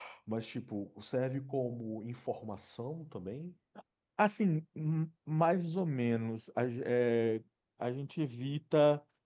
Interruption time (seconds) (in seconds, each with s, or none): none